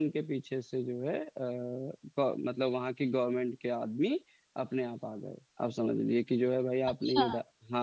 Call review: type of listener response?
listening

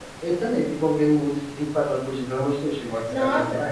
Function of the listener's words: taking over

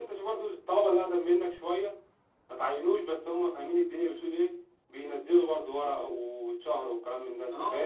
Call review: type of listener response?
taking over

